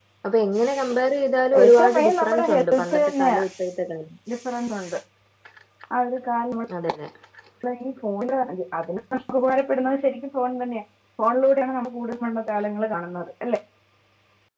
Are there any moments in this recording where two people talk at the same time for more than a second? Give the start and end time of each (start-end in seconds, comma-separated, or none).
1.6-3.4